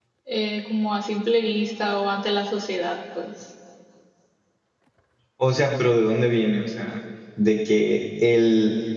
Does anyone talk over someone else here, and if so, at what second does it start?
none

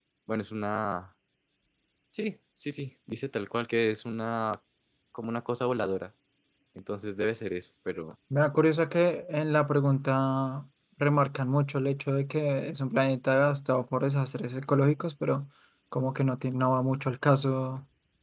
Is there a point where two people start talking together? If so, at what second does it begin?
none

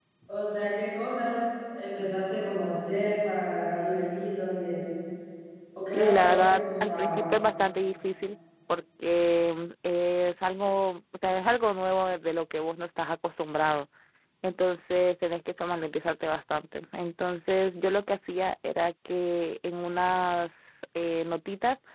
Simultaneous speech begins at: 6 s

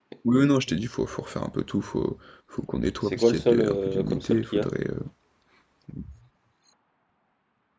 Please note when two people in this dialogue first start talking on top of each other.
3 s

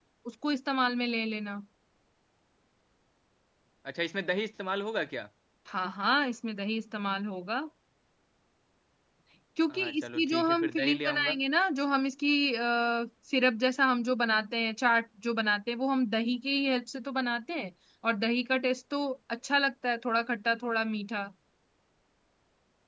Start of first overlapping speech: 10 s

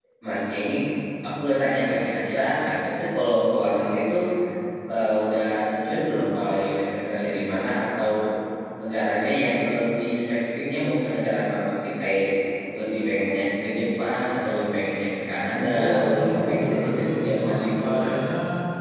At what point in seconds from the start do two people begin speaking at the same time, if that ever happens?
16 s

